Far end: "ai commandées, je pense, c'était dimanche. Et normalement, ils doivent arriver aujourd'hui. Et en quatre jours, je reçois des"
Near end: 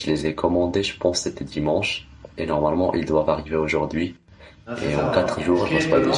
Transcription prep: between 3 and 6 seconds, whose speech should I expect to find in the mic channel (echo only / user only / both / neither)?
both